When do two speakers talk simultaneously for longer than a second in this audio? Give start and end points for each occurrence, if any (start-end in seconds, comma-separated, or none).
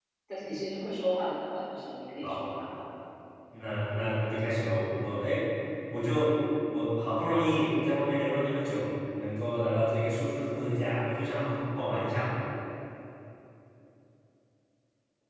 none